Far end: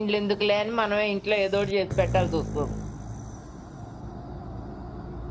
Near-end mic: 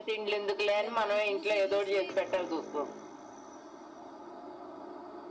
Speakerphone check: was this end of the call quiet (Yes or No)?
No